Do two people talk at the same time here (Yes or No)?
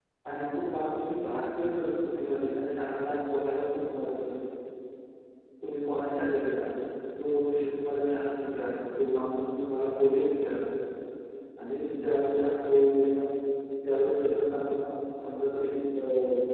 No